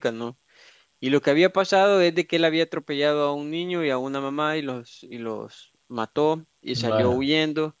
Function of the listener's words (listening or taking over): listening